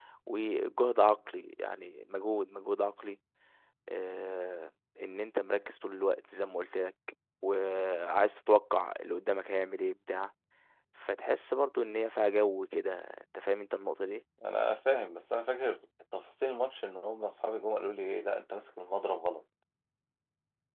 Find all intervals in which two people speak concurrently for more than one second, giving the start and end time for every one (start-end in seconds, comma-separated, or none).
none